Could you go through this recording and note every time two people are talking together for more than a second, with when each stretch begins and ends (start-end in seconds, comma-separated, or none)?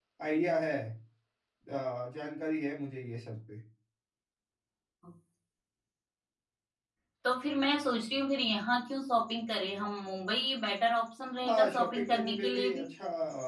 11.5-12.8